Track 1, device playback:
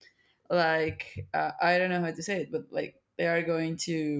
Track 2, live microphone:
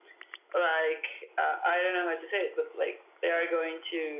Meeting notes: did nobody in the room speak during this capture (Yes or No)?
Yes